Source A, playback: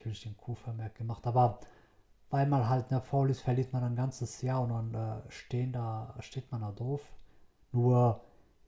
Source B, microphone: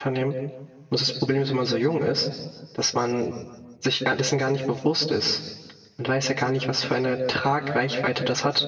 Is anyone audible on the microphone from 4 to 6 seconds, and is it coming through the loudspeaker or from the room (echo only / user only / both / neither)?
user only